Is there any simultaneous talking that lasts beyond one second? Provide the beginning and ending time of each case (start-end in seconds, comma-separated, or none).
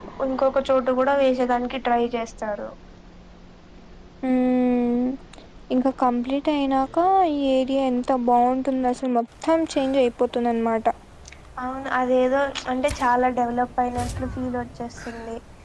none